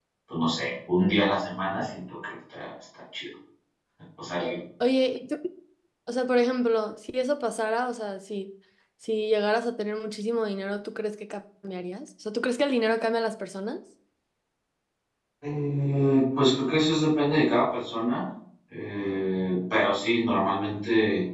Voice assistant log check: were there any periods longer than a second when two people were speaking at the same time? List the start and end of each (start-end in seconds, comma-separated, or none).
none